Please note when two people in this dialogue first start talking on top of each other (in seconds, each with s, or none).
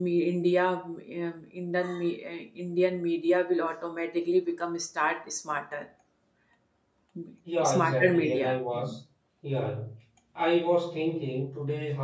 7.6 s